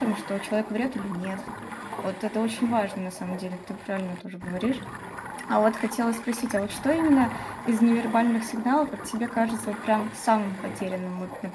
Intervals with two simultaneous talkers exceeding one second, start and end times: none

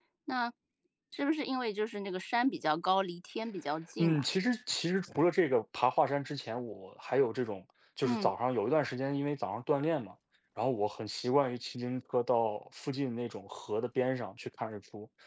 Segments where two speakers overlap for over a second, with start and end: none

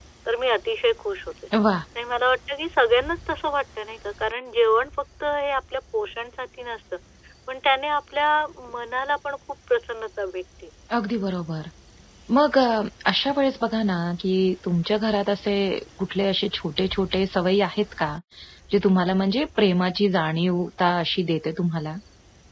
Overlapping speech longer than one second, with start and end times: none

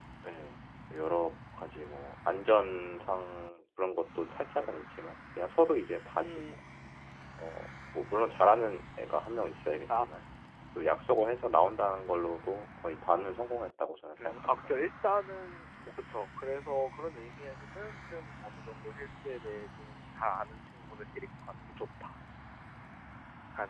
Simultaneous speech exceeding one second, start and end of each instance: none

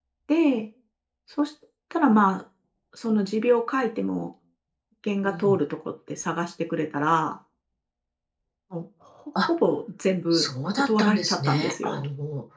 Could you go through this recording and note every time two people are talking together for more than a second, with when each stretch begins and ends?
10.3-12.0

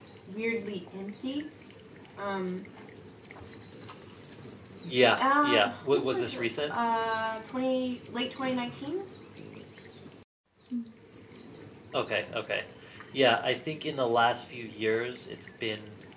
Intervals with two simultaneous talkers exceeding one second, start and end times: 5.2-6.7

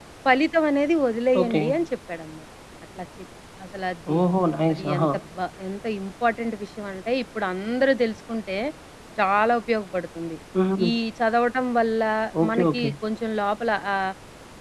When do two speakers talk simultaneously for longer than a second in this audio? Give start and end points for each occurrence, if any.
none

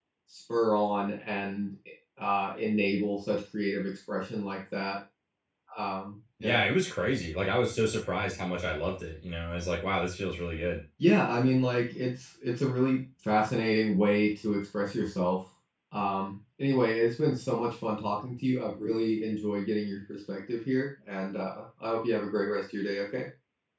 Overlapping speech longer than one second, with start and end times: none

